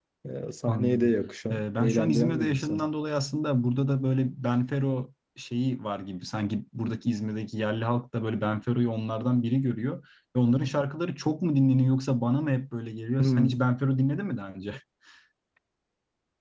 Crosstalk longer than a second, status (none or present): present